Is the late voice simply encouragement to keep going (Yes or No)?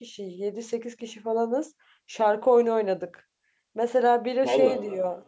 Yes